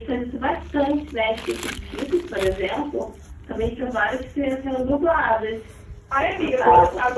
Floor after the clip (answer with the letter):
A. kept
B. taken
B